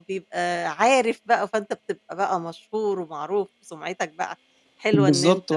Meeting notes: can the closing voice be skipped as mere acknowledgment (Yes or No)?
No